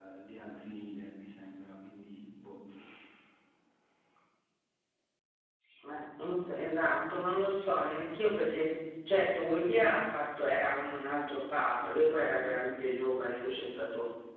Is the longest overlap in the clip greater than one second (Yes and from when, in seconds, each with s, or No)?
No